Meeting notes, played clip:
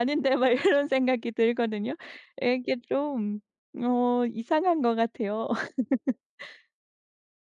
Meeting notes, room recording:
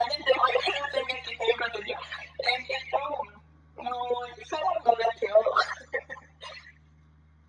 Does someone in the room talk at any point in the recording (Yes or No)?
No